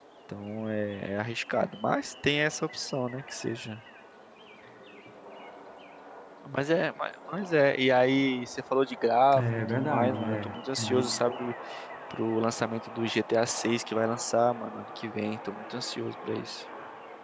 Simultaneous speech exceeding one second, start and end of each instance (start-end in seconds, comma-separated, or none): 9.4-11.1